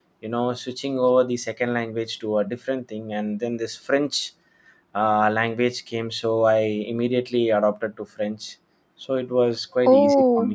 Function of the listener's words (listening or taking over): taking over